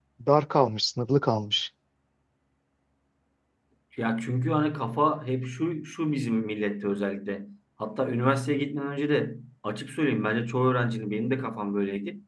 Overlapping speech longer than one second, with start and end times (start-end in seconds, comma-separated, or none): none